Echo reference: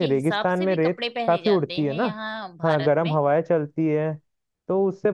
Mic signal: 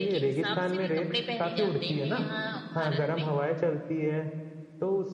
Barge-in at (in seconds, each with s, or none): none